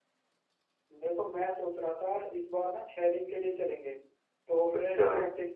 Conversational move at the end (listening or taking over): listening